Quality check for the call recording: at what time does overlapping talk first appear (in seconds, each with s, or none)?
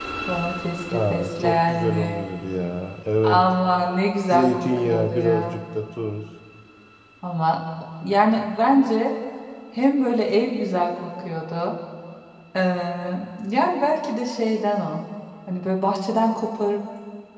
0.9 s